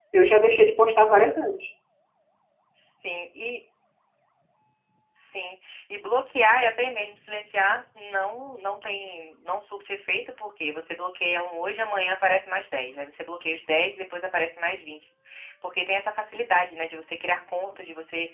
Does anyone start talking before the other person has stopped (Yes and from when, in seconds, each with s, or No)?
No